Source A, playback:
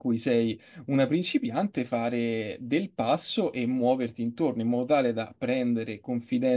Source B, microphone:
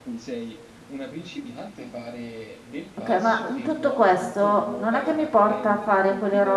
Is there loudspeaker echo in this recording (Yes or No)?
Yes